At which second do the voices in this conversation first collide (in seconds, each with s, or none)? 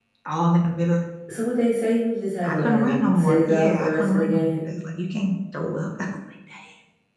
2.4 s